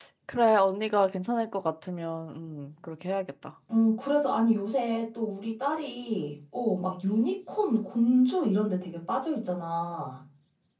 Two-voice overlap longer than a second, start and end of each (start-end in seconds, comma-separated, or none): none